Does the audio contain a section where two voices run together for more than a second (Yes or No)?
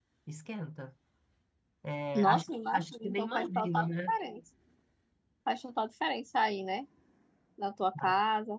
Yes